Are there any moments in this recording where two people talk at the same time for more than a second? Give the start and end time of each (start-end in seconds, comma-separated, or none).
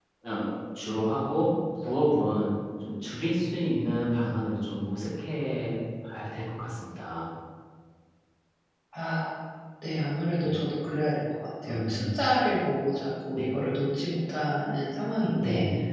none